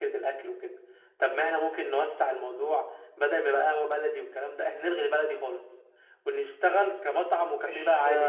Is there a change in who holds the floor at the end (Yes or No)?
Yes